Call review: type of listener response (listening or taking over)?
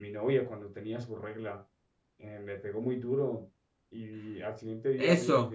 taking over